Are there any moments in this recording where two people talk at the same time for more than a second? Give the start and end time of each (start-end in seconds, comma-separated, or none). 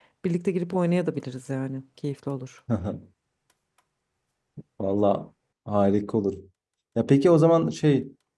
none